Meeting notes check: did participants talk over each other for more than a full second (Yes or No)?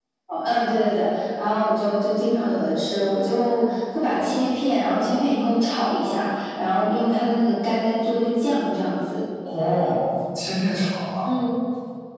No